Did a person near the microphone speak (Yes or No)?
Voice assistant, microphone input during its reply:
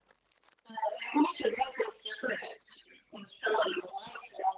No